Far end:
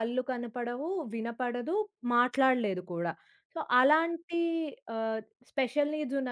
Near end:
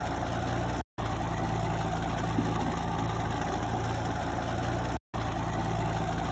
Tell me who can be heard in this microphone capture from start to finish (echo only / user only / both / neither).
neither